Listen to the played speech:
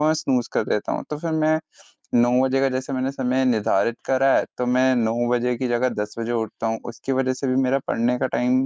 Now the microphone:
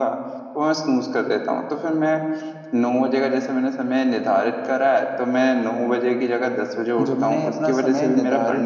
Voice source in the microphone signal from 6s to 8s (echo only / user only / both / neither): both